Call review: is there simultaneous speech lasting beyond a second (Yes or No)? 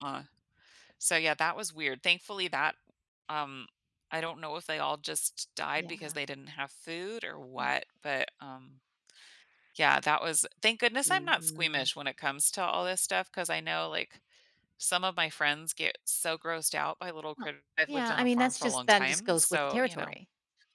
Yes